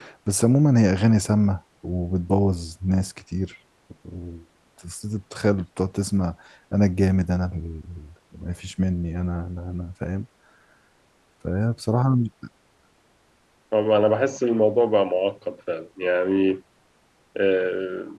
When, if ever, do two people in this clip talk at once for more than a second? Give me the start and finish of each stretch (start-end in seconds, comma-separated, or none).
none